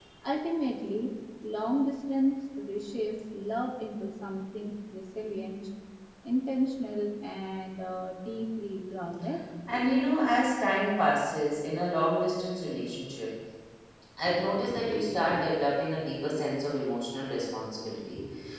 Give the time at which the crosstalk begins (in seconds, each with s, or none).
none